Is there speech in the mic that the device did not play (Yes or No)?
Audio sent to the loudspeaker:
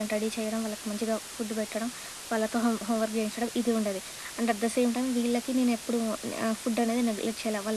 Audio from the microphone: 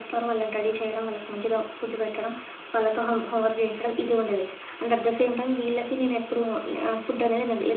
No